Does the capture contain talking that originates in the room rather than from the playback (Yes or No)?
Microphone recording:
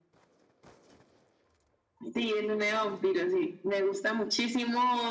No